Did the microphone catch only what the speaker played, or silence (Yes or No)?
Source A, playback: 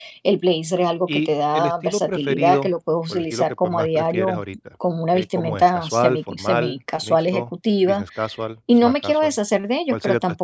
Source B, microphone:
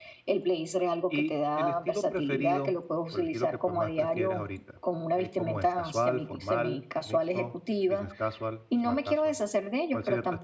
Yes